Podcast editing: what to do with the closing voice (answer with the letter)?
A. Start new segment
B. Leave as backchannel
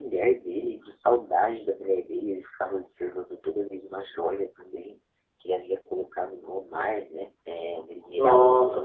A